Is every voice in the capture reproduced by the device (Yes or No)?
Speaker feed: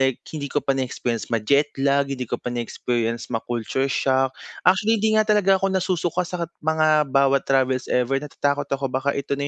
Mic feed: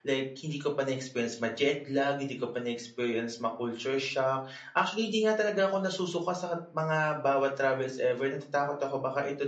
Yes